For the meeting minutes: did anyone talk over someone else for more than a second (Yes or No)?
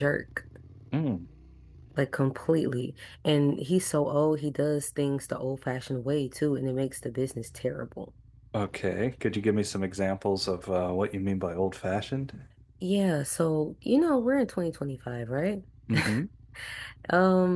No